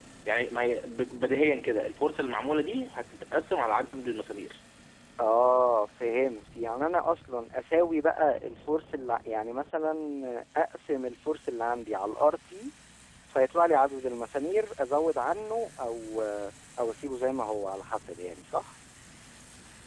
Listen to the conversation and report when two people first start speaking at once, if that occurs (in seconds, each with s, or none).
none